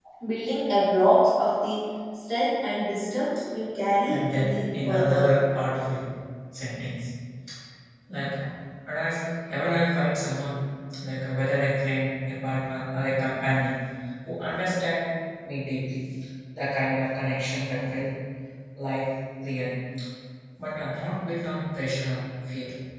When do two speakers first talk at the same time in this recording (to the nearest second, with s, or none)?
4 s